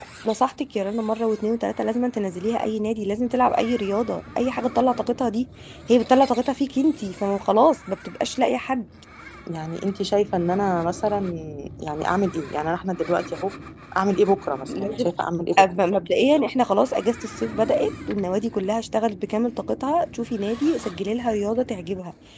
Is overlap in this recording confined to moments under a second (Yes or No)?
Yes